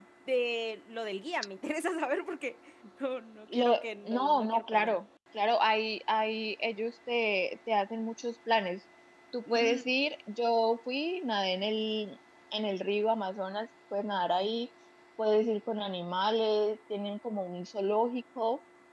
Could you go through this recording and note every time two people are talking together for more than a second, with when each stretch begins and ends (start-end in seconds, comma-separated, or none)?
3.5-5.0